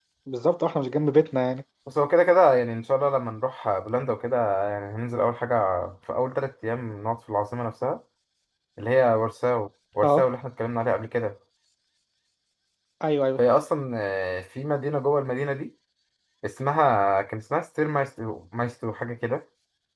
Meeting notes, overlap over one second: none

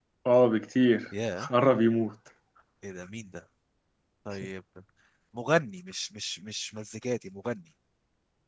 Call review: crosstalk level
none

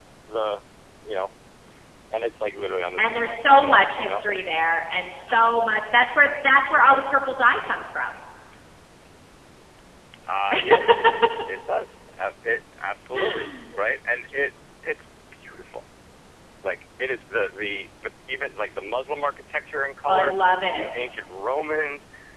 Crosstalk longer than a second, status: present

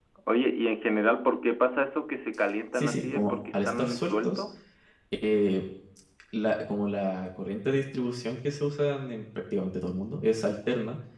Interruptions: present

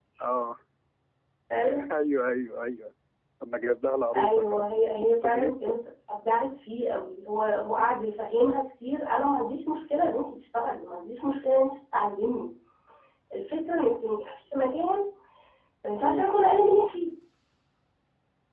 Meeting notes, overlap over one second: present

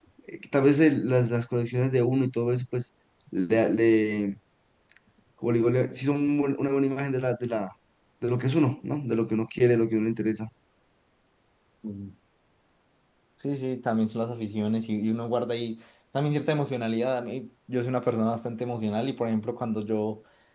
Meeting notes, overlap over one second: none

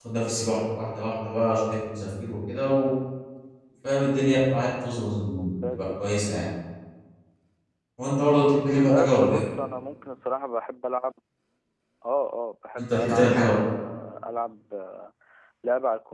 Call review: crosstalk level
present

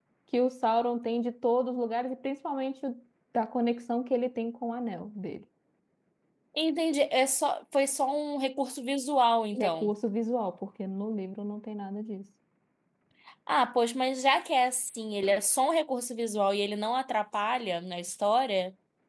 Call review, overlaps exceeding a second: none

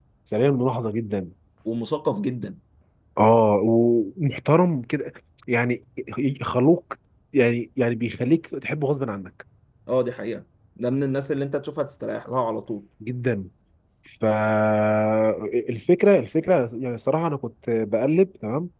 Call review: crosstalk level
none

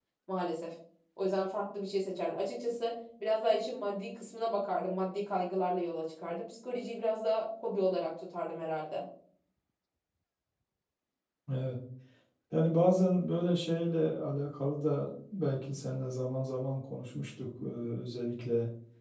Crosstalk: none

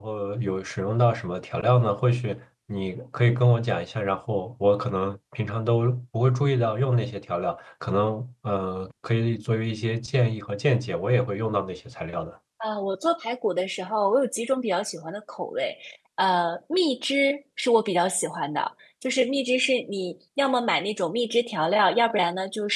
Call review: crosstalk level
none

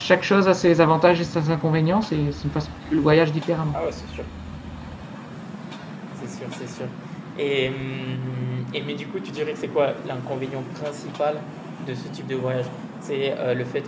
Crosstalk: none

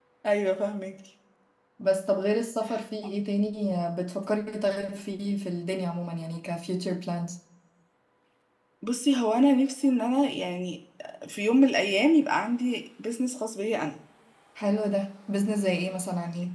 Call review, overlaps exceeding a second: none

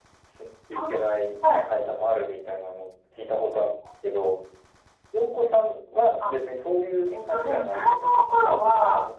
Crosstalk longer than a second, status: present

